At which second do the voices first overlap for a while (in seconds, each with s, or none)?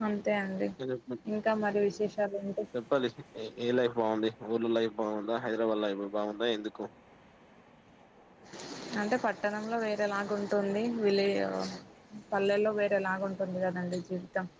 none